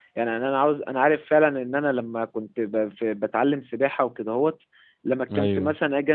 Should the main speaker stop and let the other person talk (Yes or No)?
No